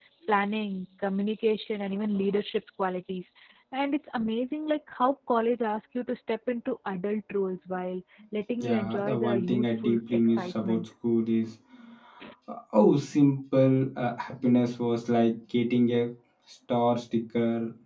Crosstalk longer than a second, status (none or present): present